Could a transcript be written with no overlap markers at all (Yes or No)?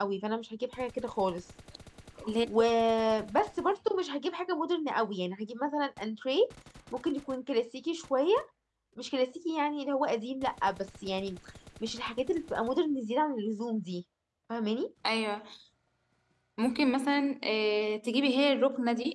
Yes